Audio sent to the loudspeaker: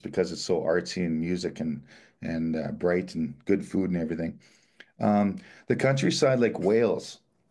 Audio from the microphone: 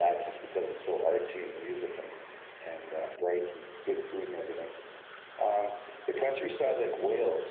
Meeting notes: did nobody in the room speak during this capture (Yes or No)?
Yes